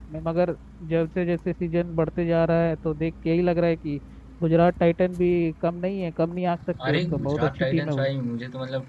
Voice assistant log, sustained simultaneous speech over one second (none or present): present